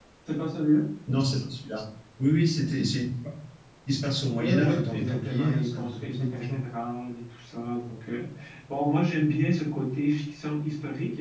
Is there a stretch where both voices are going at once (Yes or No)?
Yes